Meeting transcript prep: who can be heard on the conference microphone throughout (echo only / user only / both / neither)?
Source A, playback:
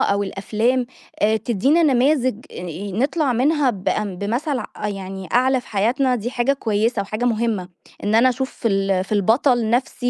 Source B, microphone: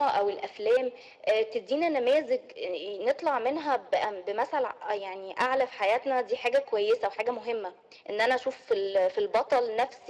echo only